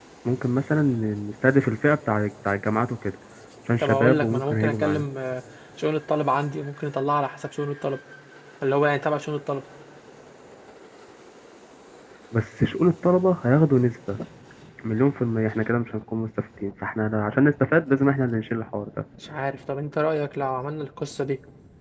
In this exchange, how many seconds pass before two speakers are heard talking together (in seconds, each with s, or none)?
3.8 s